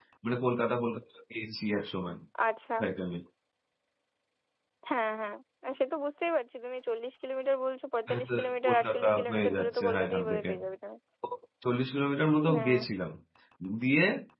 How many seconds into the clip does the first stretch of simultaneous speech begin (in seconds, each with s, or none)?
8.1 s